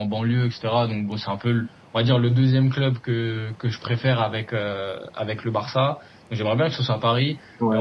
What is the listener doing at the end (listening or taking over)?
listening